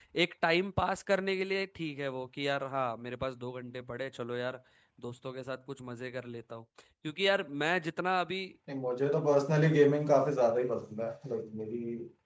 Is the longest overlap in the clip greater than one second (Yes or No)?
No